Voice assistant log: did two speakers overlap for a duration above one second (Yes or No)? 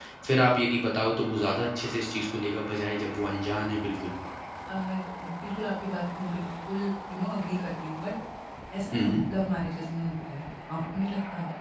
No